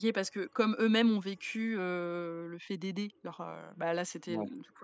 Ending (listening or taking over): listening